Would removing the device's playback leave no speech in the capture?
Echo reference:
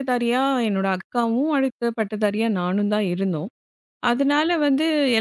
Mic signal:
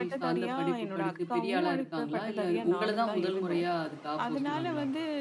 No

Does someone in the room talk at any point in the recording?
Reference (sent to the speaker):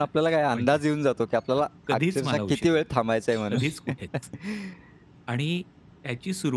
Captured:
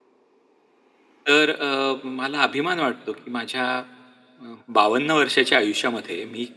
Yes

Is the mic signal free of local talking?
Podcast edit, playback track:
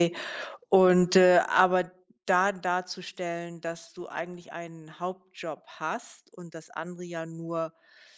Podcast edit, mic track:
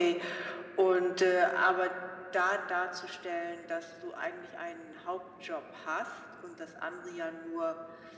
Yes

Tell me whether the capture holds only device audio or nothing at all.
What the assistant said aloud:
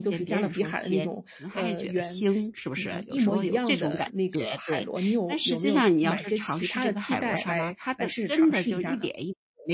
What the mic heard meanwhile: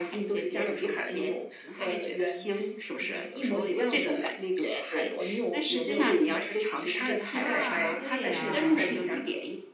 No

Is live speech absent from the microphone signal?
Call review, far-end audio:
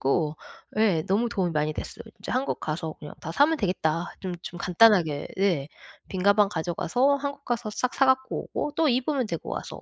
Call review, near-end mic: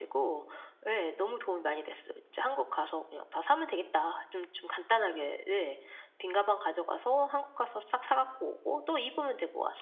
Yes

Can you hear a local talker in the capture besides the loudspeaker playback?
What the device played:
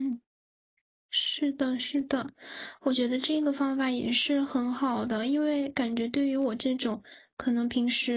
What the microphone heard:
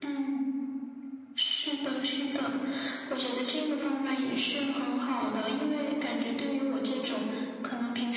No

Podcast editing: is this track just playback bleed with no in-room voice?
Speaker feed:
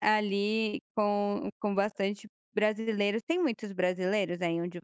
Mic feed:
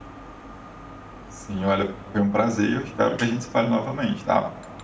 No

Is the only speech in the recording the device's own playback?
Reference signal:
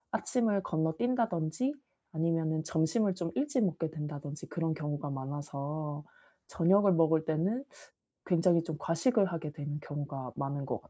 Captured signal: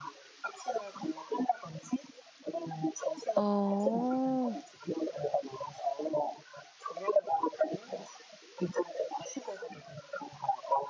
No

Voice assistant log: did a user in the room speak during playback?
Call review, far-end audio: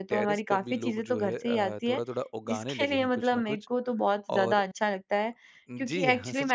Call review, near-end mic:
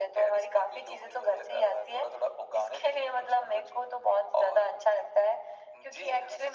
No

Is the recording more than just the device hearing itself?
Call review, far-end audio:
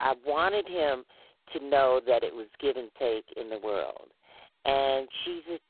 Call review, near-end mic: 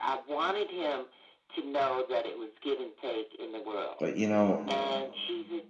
Yes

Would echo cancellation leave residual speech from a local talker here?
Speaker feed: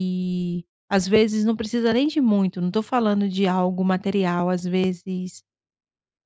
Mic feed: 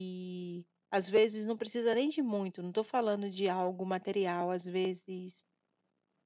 No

